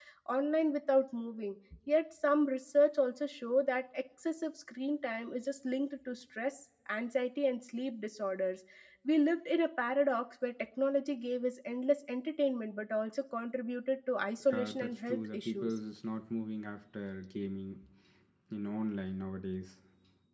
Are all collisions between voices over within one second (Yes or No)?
No